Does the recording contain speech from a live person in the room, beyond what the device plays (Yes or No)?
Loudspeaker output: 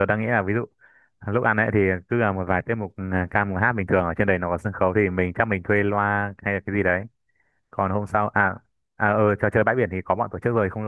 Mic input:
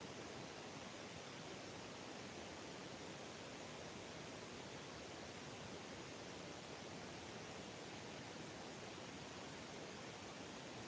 No